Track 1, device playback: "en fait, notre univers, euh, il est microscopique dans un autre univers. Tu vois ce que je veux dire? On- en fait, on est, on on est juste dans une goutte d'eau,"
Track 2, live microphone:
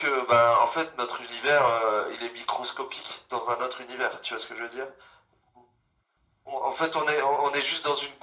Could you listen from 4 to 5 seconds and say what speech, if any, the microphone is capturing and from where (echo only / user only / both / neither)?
echo only